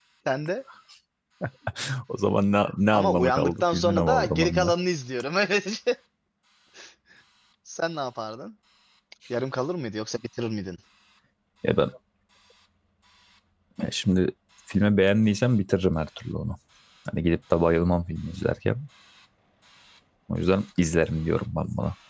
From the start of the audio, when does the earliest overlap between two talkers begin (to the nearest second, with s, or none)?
3 s